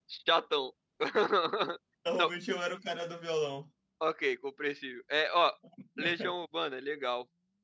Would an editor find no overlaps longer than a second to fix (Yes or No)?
Yes